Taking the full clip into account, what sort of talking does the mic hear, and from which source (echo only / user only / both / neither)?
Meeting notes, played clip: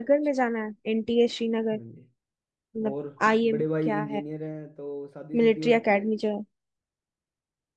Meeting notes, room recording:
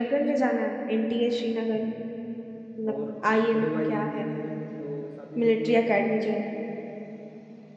echo only